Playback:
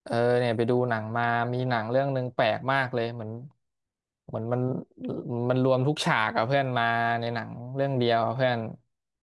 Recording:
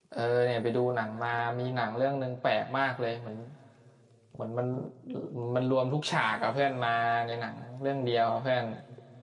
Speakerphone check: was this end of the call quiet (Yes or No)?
Yes